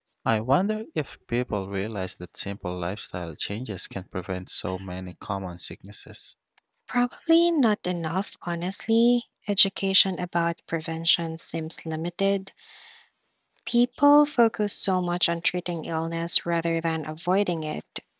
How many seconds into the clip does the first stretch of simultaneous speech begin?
none

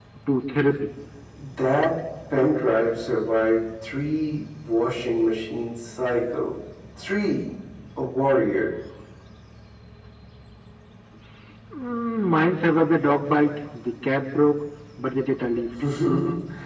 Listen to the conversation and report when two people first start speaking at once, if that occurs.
none

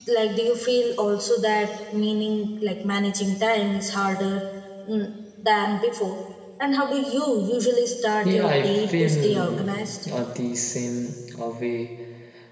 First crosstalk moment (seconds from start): 8 s

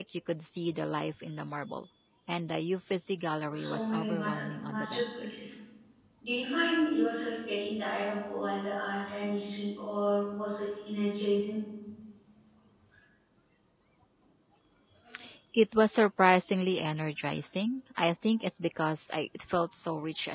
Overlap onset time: 4 s

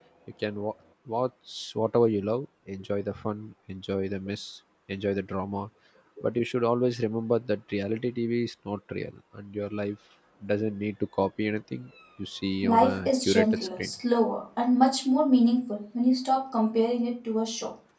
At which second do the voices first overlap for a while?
13 s

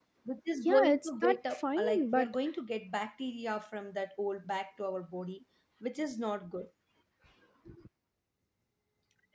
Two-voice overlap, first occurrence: 1 s

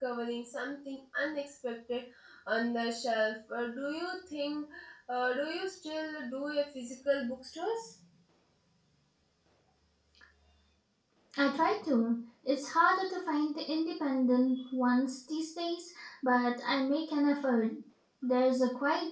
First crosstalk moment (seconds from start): none

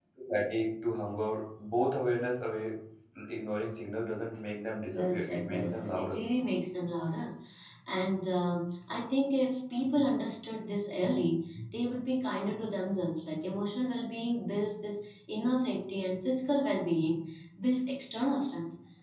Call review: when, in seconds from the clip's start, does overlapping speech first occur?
5 s

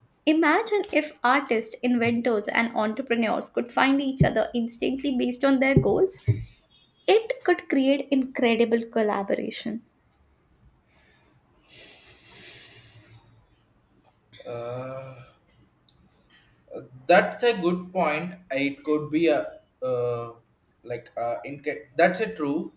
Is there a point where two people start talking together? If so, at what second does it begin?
none

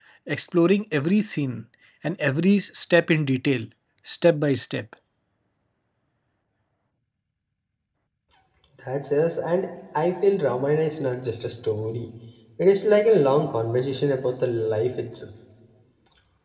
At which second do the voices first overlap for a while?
none

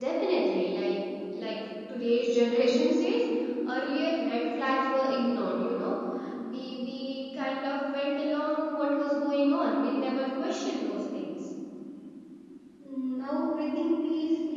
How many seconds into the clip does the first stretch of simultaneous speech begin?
none

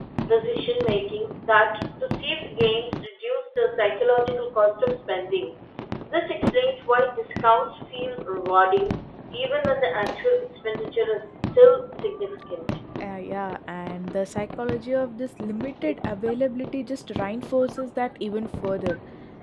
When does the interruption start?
none

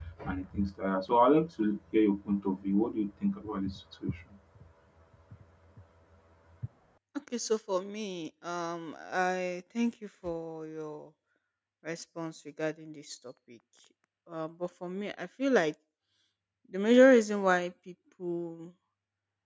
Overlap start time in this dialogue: none

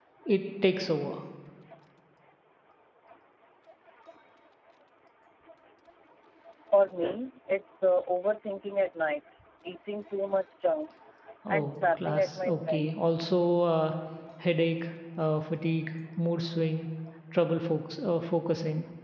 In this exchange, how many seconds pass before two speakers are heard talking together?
11 s

